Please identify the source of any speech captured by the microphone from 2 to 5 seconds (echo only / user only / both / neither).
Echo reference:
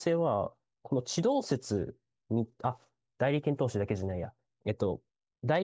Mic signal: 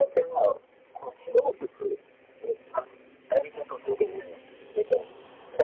echo only